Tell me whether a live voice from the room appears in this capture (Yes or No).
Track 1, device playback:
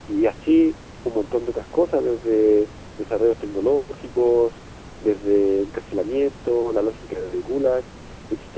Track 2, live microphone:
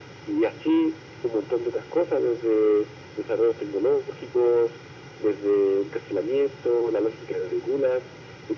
No